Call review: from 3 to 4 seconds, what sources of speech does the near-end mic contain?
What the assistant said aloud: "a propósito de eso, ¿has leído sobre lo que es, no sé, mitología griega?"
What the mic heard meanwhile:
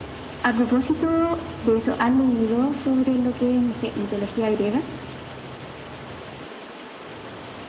echo only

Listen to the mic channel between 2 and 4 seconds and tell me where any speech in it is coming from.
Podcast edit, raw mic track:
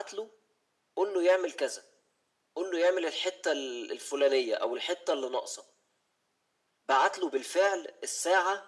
echo only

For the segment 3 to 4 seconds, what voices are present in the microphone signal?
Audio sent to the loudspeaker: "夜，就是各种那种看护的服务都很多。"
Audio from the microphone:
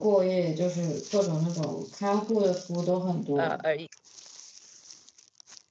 both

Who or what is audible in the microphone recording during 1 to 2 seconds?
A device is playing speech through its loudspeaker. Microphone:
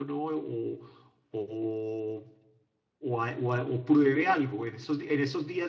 user only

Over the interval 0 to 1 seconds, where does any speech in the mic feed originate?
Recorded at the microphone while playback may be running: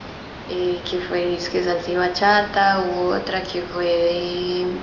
echo only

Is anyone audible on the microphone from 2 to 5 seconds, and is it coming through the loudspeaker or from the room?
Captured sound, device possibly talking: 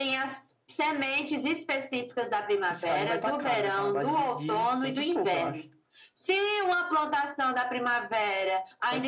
echo only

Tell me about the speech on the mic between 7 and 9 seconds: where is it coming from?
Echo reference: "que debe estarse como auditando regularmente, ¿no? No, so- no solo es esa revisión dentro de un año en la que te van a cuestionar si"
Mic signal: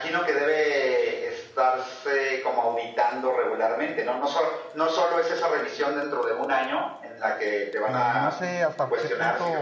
both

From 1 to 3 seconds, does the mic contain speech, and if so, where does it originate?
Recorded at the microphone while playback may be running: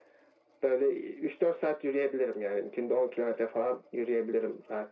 echo only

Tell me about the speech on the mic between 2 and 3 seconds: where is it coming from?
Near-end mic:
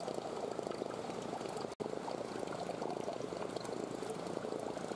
neither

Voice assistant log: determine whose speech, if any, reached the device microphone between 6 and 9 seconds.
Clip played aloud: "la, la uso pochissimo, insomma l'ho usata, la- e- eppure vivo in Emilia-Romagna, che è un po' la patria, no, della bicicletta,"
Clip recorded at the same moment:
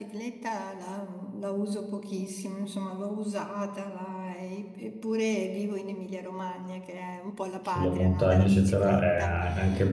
both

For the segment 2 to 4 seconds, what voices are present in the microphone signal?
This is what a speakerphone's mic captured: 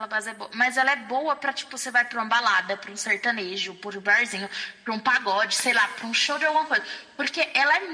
echo only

